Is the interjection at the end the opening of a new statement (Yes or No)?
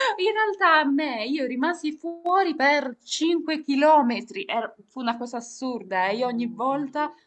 No